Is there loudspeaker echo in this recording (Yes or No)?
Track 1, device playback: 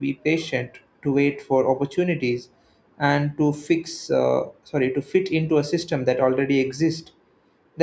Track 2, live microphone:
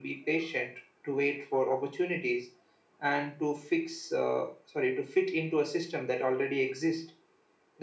Yes